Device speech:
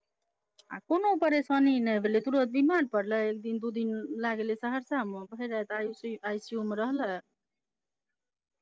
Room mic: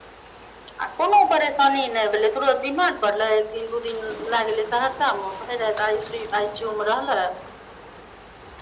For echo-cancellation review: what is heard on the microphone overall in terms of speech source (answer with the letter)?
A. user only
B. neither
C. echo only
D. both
C